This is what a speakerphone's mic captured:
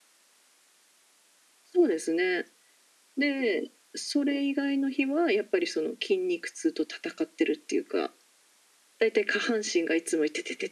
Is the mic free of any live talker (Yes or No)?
Yes